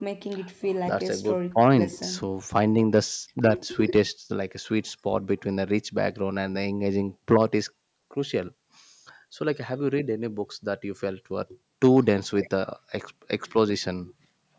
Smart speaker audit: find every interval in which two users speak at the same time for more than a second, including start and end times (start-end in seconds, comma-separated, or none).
0.9-2.3